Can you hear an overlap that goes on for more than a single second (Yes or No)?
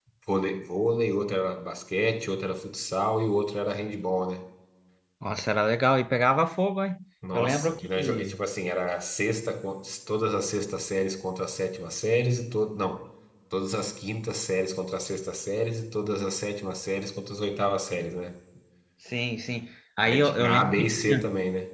Yes